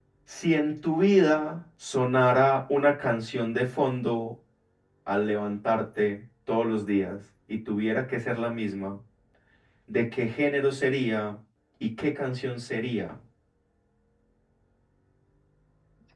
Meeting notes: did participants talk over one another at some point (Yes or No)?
No